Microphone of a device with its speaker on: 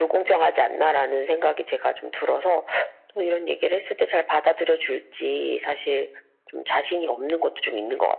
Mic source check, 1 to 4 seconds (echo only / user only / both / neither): echo only